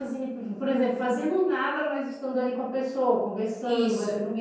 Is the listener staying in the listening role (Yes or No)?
No